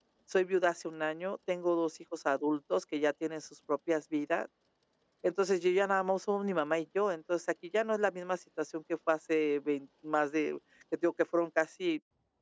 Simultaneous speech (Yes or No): No